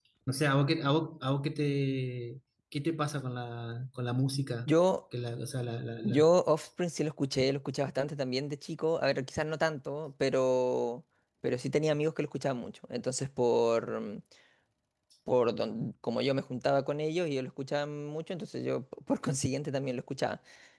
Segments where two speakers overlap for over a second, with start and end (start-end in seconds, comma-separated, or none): none